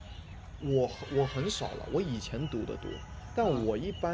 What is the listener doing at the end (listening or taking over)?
listening